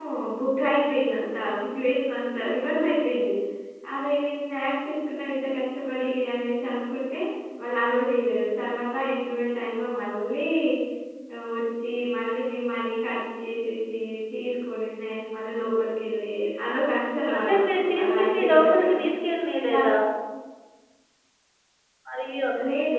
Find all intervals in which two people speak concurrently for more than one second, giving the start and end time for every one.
17.3-18.9

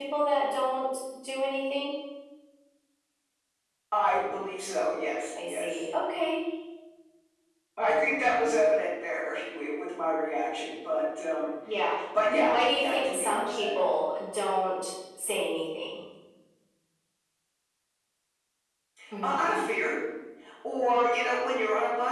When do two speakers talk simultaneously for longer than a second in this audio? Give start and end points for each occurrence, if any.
12.5-13.8

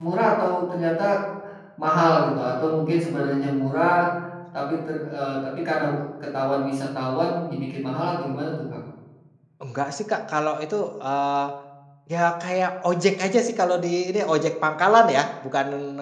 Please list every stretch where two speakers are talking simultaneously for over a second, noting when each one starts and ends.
none

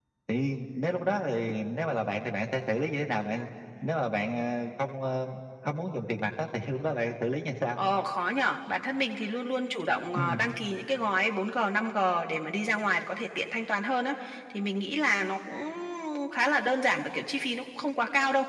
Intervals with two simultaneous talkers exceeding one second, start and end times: none

